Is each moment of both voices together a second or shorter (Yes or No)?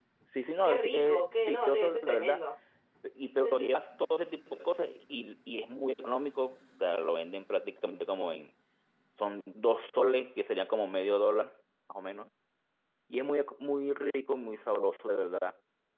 No